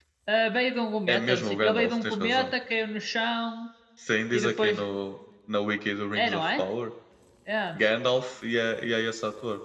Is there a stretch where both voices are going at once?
Yes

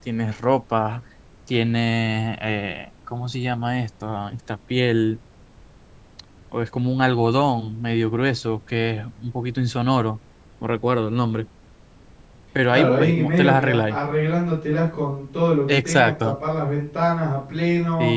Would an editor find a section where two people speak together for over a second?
Yes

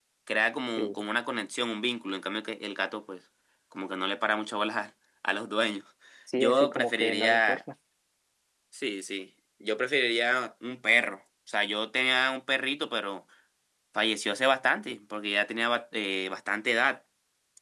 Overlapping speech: Yes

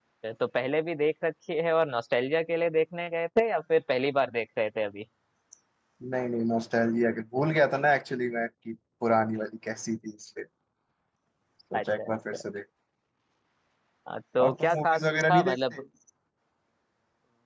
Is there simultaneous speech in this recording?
Yes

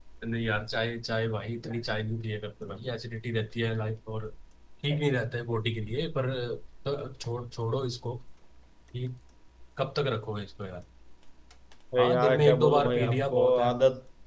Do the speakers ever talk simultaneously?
Yes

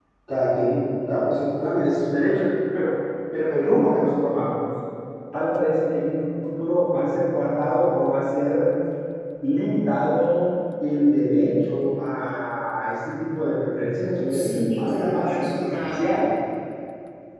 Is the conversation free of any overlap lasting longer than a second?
No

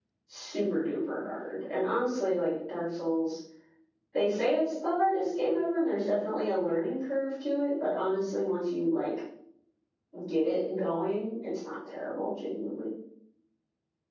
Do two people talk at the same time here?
No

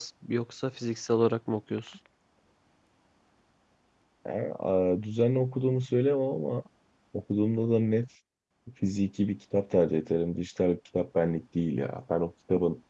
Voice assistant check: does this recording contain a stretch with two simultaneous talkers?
No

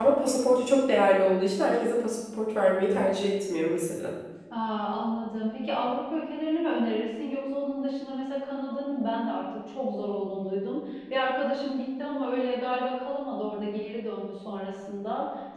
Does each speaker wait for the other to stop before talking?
Yes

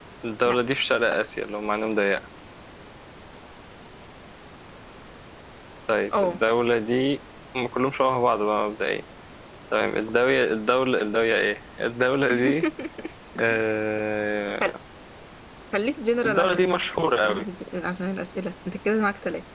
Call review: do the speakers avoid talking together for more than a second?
No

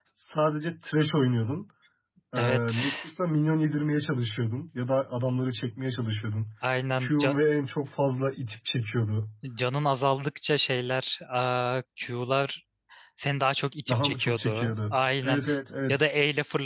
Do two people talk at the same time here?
Yes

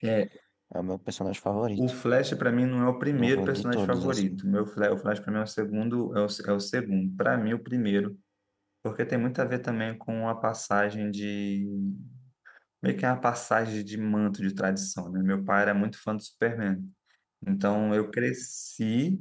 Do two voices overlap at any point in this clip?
Yes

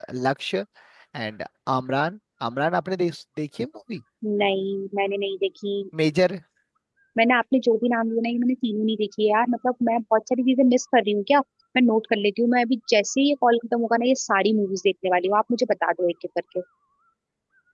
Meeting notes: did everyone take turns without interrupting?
Yes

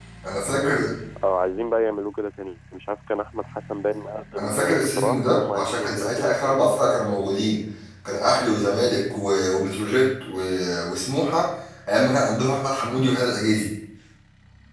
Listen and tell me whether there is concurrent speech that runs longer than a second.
Yes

